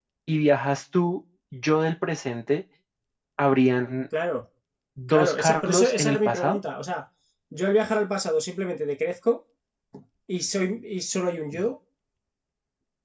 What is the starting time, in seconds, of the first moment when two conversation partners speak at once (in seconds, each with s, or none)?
5.1 s